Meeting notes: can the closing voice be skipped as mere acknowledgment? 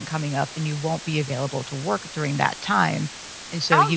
No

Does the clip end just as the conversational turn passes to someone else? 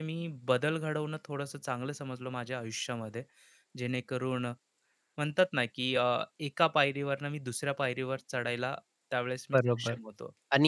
Yes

